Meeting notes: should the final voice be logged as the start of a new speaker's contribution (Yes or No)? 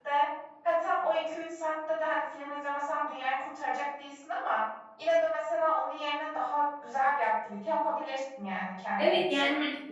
Yes